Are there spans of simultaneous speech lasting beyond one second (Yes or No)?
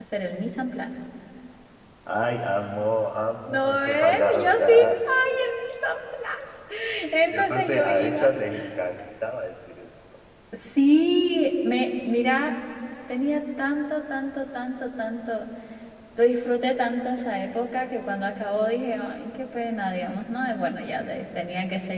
Yes